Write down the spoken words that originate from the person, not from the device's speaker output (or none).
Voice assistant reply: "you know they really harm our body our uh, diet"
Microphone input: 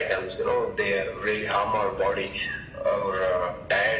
none